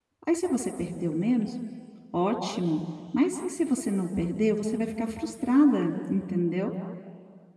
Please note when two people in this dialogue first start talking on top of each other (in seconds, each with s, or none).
none